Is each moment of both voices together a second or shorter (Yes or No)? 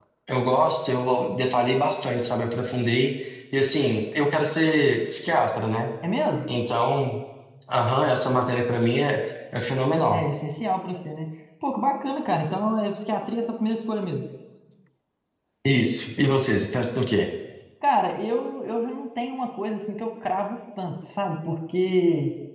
Yes